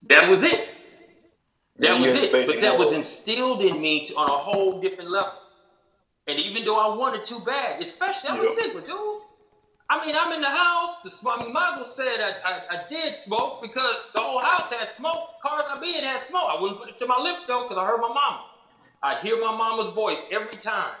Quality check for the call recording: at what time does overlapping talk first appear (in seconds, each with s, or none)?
1.8 s